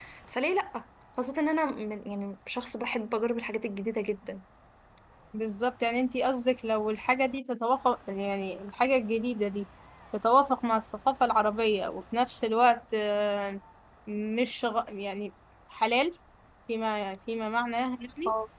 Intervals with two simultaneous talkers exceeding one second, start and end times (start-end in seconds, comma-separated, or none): none